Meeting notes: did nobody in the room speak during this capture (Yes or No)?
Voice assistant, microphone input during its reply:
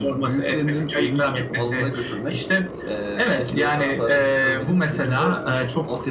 Yes